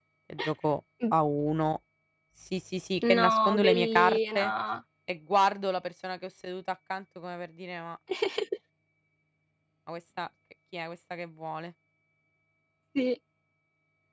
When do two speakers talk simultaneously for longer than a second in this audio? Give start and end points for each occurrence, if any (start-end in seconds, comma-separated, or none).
3.1-4.5